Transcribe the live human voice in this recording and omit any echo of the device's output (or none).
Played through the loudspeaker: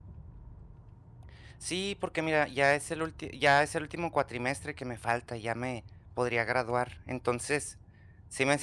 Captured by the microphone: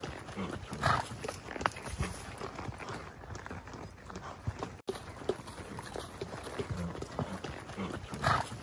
none